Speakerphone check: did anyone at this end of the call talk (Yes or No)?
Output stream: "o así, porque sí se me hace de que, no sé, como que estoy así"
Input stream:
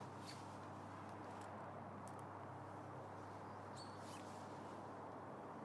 No